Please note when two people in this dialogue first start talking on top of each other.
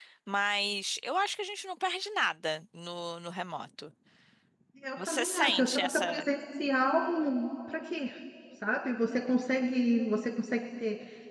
5.0 s

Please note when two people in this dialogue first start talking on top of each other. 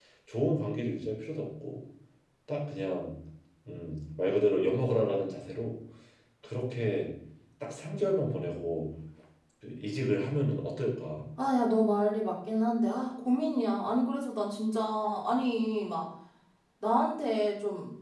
none

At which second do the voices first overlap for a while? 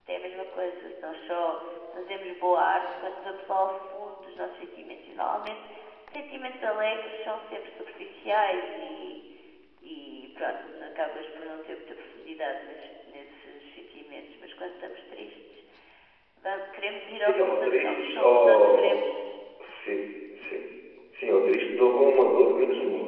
17.2 s

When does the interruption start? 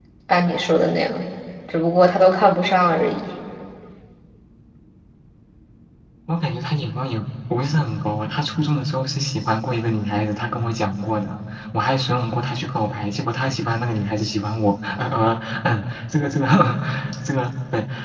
none

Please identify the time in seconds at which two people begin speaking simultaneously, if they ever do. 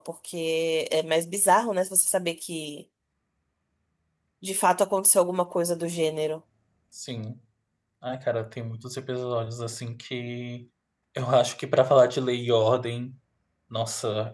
none

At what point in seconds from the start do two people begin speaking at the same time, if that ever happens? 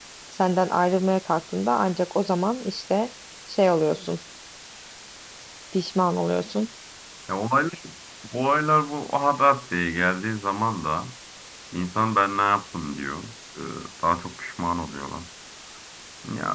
none

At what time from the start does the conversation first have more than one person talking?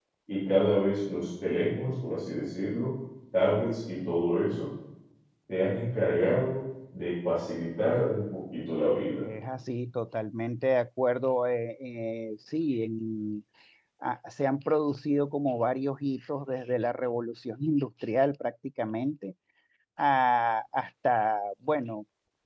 none

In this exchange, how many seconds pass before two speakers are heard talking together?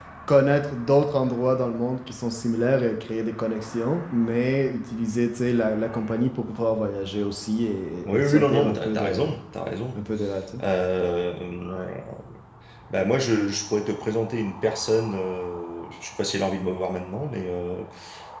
8.0 s

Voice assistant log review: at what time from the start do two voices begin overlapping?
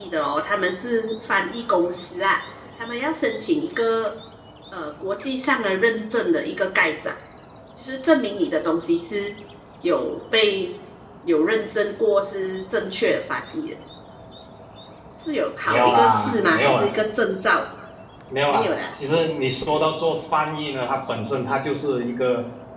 15.7 s

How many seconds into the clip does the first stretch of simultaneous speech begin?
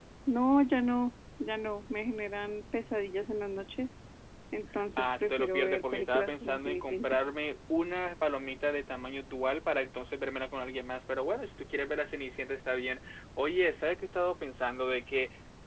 5.0 s

